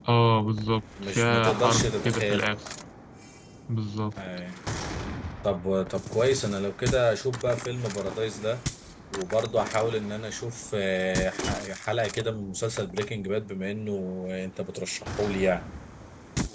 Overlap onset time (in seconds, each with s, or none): 1.0 s